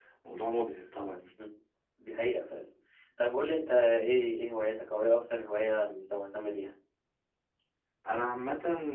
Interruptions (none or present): none